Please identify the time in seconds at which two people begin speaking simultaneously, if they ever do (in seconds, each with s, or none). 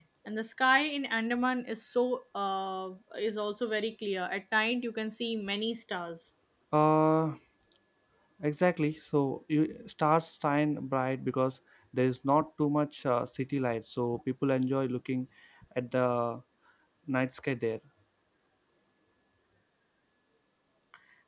none